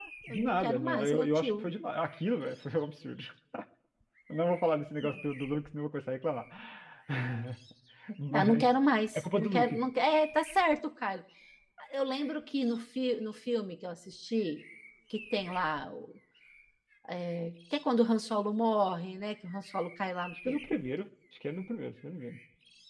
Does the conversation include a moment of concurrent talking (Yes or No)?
Yes